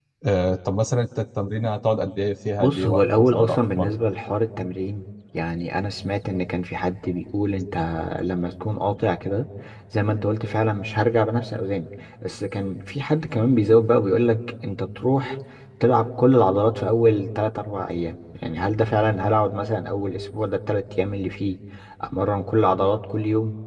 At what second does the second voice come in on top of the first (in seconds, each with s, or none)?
2.6 s